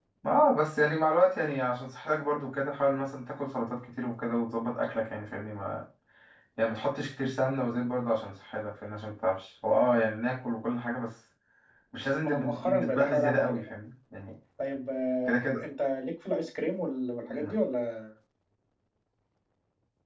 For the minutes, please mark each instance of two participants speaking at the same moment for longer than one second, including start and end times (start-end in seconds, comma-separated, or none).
12.2-13.6